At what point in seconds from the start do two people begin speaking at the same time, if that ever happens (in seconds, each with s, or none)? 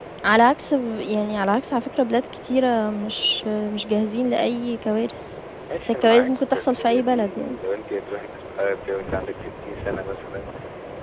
5.8 s